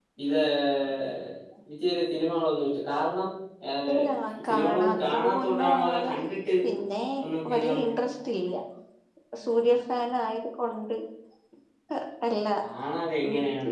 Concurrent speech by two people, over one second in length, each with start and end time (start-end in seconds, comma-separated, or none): 4.5-6.1